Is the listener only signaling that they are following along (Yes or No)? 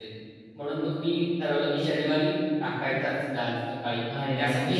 No